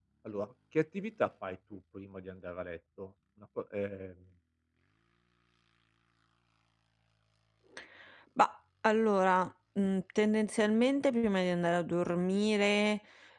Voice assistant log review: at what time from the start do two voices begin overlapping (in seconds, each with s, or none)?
none